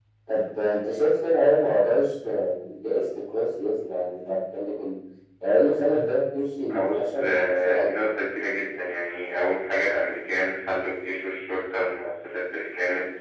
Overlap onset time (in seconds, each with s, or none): 6.7 s